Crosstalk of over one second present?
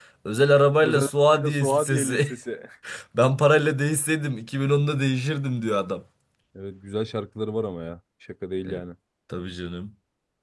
Yes, from 0.8 s

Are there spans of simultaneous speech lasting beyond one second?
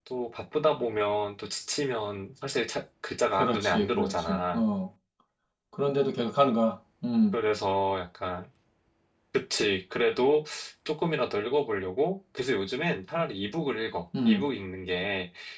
Yes, from 3.4 s

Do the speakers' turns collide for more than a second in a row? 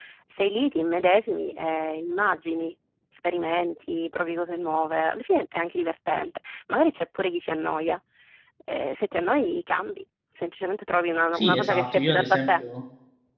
Yes, from 11.3 s

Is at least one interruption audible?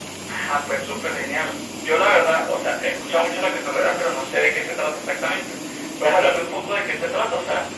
No

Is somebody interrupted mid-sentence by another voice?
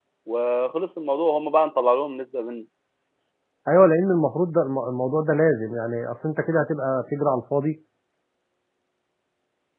No

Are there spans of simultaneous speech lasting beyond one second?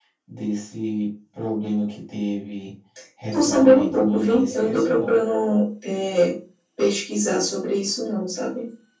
Yes, from 3.3 s

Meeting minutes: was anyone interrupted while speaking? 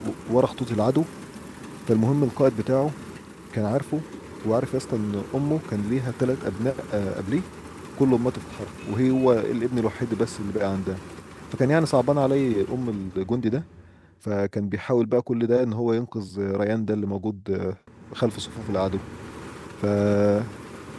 No

